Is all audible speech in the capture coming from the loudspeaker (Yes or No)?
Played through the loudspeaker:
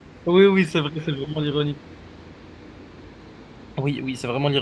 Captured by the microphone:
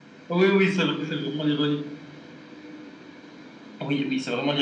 Yes